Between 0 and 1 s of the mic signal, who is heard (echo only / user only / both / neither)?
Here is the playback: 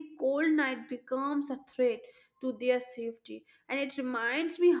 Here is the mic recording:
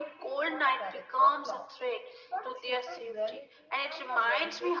both